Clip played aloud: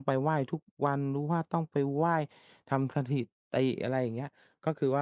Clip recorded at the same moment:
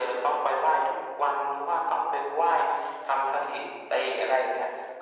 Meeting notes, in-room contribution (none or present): none